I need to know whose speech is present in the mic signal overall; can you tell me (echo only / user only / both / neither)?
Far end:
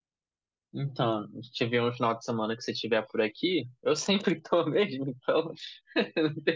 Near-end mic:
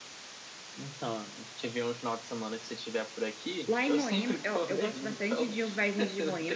both